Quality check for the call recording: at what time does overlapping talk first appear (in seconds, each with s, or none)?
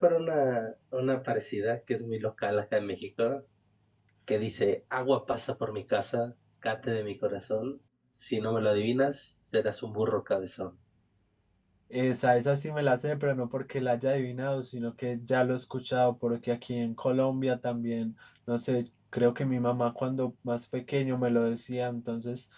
none